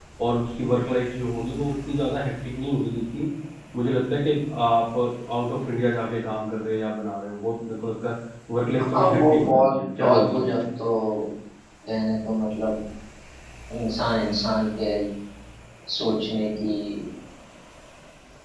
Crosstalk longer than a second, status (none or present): present